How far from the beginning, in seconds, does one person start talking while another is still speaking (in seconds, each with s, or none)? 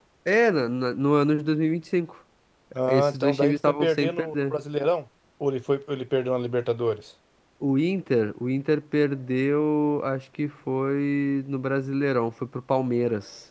2.9 s